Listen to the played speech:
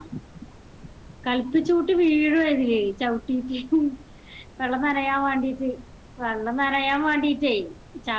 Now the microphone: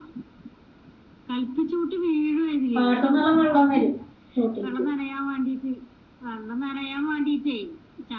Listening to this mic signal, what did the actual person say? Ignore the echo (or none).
പാടത്ത്‌ ന്ന്ള്ള വെള്ളം വരും തോട്ടിലെക്ക്